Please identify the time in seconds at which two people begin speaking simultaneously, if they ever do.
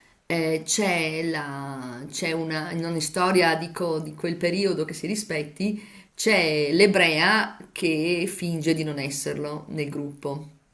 none

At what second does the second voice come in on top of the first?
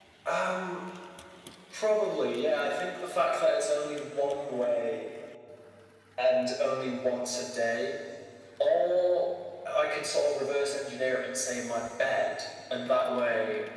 none

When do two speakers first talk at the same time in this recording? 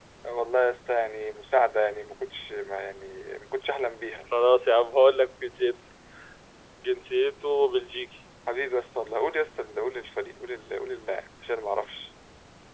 none

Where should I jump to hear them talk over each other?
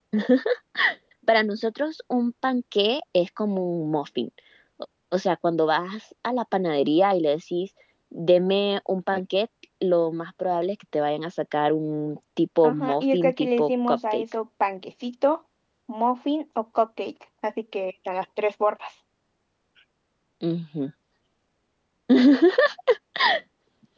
13 s

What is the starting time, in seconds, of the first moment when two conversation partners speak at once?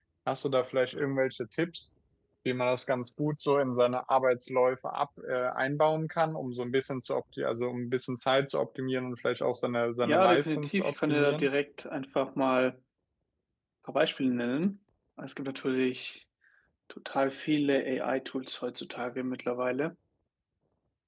10 s

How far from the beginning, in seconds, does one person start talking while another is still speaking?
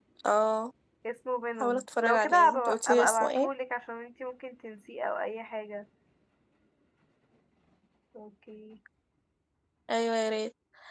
2 s

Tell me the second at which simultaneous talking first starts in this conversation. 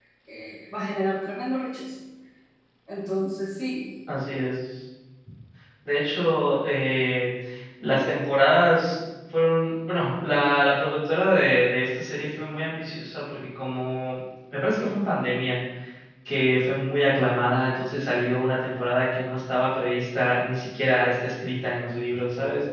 none

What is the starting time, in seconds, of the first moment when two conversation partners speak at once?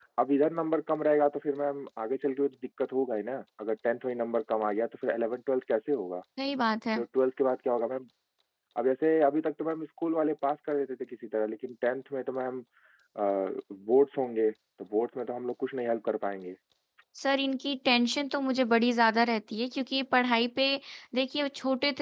none

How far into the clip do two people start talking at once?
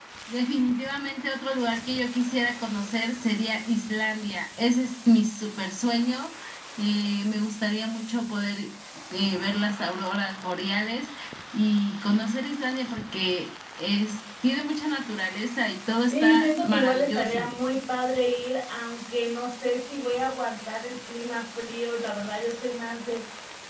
16 s

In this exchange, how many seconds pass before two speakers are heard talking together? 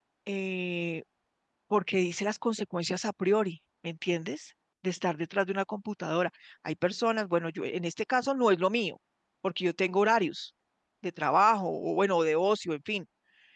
none

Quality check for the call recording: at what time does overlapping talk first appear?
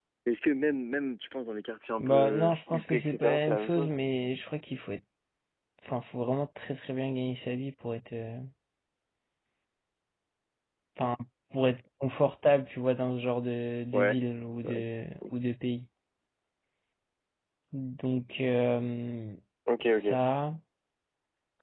2 s

